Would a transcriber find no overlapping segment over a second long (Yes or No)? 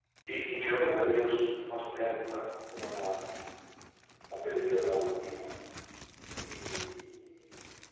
Yes